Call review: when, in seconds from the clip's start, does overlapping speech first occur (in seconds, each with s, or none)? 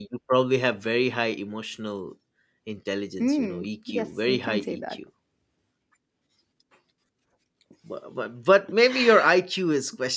3.2 s